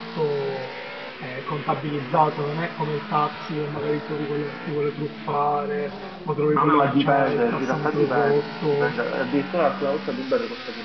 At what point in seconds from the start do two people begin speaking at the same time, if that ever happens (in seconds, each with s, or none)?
6.5 s